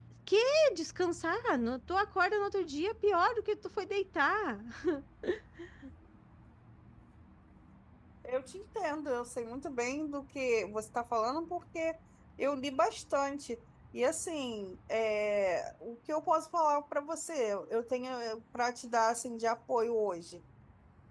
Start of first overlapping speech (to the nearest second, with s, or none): none